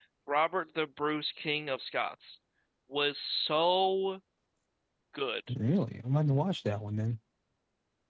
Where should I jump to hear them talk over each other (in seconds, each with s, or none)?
none